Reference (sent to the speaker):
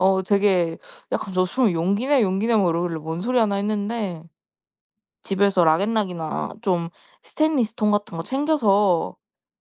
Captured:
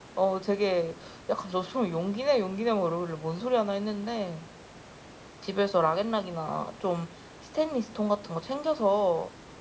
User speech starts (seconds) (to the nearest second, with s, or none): none